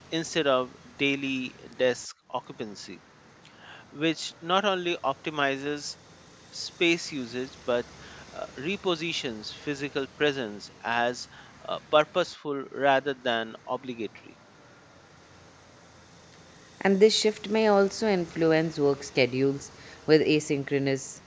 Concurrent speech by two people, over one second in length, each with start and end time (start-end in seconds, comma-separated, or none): none